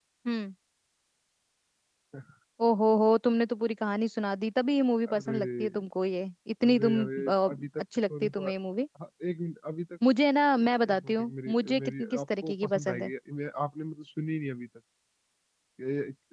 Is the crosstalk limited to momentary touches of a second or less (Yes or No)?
No